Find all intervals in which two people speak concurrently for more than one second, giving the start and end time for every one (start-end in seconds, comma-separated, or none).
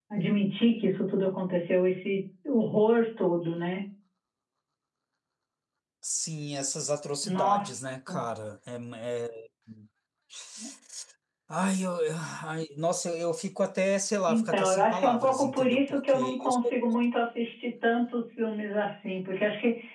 14.3-16.7